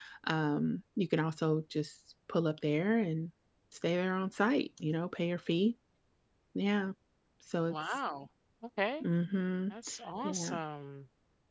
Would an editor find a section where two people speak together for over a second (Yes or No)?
No